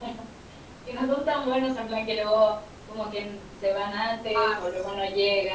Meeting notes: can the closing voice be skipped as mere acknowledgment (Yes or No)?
No